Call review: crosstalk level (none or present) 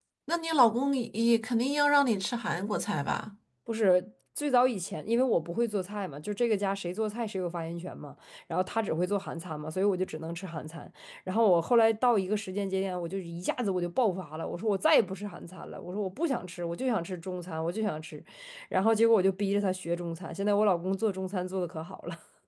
none